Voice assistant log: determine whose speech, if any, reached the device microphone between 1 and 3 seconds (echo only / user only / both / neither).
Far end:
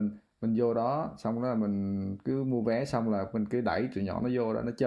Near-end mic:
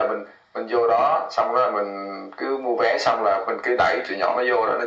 echo only